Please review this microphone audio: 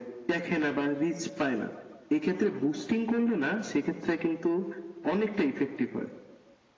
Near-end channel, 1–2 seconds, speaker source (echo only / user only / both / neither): echo only